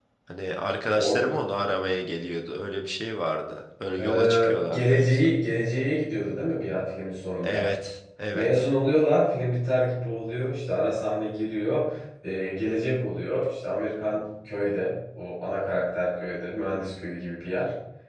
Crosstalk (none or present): present